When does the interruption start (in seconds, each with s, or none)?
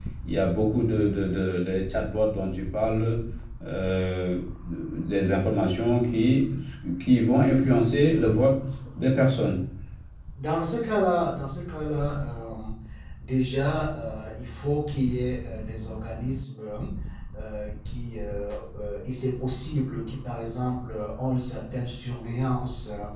none